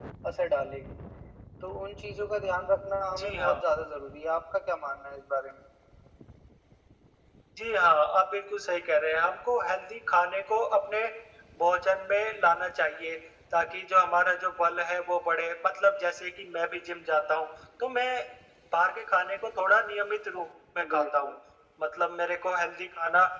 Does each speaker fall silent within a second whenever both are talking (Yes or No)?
Yes